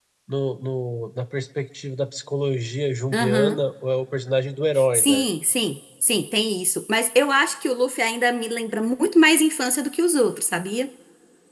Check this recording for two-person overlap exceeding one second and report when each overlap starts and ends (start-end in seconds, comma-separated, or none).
none